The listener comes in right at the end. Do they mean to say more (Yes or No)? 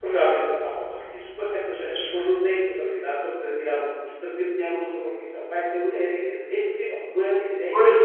Yes